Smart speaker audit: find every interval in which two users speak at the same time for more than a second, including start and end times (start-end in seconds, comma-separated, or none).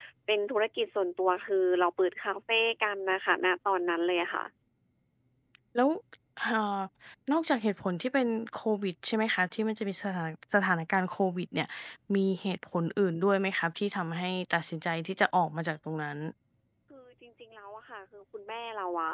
none